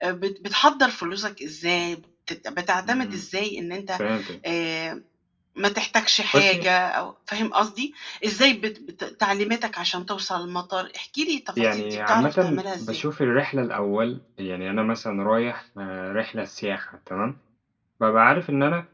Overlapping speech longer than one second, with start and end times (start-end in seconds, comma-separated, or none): 11.6-13.0